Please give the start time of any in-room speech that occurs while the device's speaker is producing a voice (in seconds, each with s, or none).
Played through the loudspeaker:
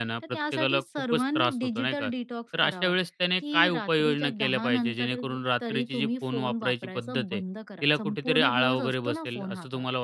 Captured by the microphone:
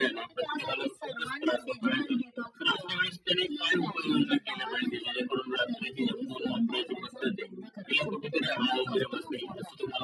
none